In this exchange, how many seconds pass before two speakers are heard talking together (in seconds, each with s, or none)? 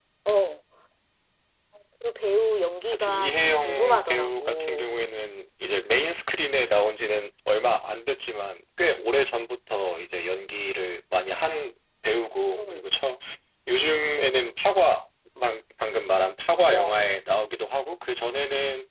2.9 s